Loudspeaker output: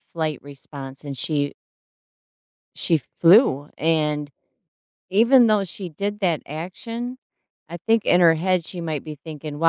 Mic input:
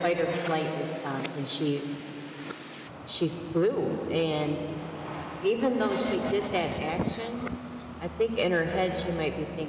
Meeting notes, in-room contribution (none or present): none